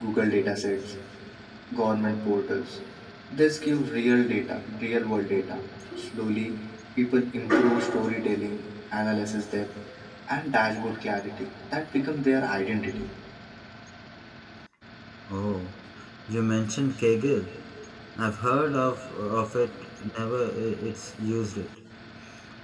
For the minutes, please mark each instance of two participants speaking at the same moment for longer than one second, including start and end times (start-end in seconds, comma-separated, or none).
none